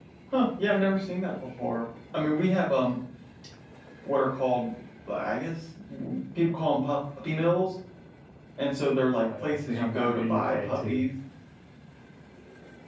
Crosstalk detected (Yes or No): Yes